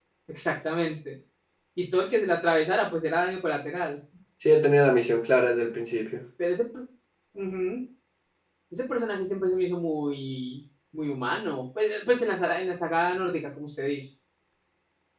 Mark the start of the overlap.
none

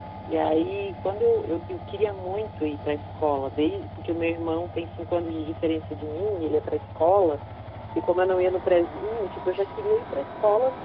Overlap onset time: none

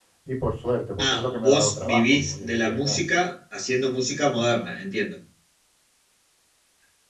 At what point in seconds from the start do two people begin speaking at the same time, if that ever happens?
1 s

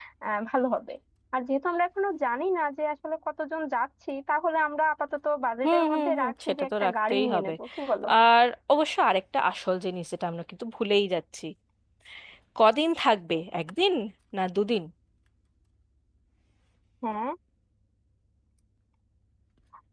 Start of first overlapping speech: 6 s

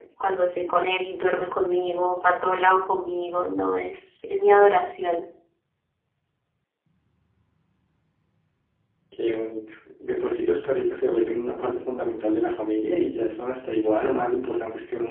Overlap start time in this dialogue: none

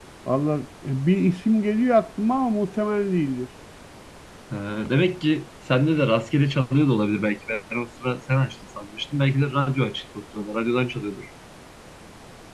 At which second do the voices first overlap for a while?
none

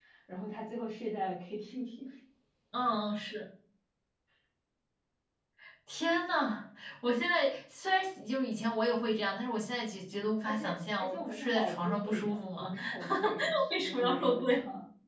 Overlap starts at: 10 s

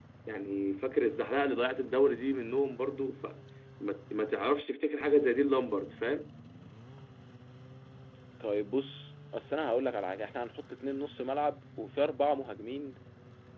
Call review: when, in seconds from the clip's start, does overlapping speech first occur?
none

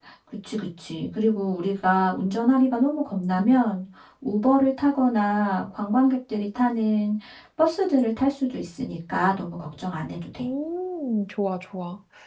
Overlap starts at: none

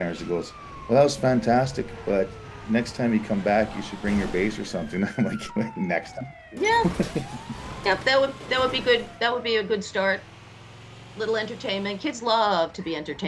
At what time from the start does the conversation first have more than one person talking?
none

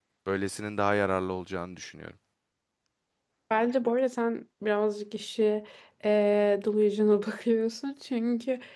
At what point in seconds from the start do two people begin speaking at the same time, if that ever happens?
none

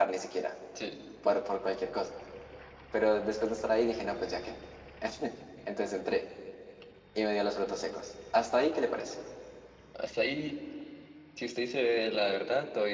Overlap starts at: none

